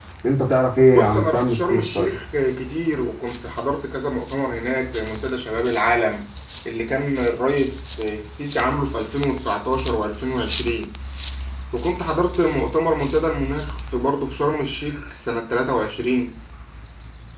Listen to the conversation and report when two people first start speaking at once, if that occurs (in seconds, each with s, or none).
0.9 s